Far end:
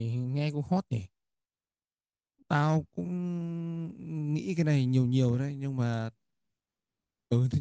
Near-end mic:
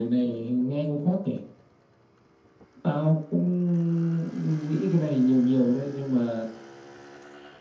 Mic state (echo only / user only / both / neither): echo only